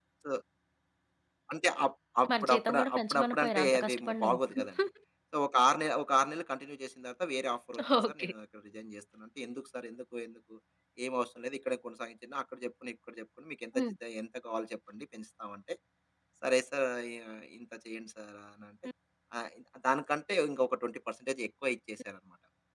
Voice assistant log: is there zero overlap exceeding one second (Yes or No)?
No